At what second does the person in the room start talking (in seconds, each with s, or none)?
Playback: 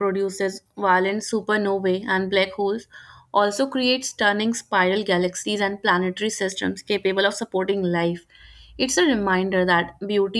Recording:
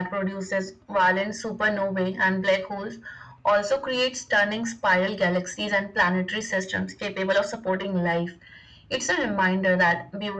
none